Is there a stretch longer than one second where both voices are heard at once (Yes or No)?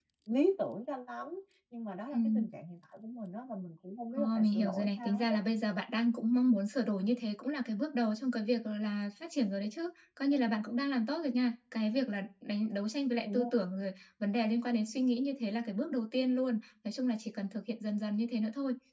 Yes